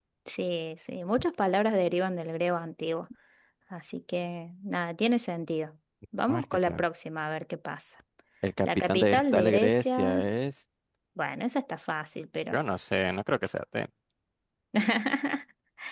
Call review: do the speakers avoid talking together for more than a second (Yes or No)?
No